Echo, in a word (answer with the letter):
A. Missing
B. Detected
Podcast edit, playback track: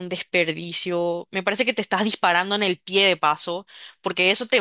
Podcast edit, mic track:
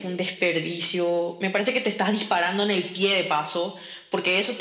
B